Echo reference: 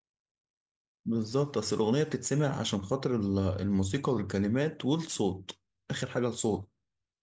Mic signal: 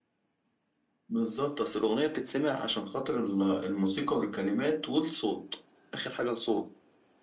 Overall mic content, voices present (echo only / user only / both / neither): echo only